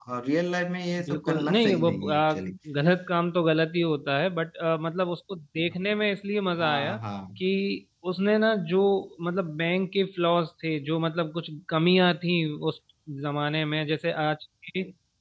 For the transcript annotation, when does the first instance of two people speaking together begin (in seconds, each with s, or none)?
1.0 s